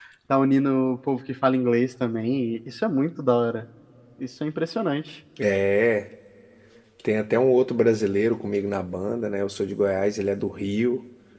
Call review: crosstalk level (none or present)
none